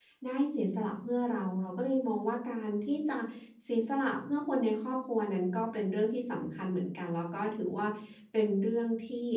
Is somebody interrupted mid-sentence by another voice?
No

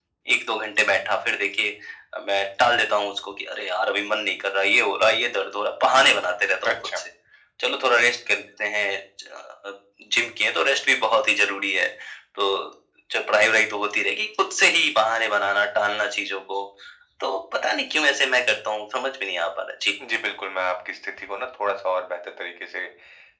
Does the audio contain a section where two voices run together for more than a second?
No

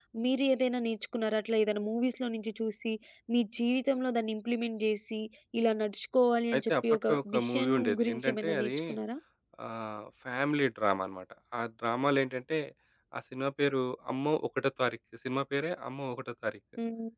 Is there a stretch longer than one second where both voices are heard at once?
Yes, from 6.5 s

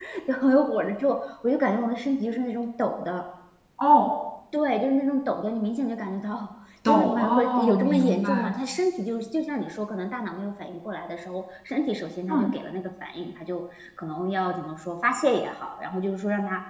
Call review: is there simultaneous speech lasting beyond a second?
Yes, from 6.8 s

